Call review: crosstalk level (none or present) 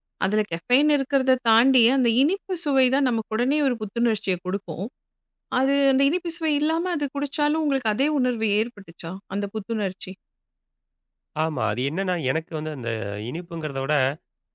none